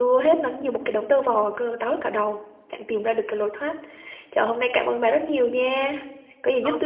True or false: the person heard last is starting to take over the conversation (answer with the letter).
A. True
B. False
A